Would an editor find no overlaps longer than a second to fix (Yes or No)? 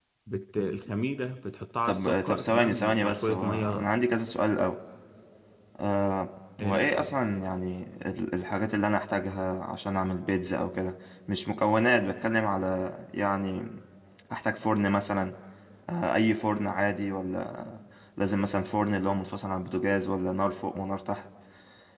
No